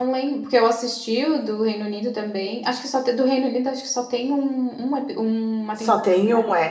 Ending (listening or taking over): taking over